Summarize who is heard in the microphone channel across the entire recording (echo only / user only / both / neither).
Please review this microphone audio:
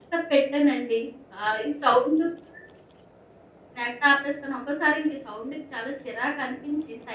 user only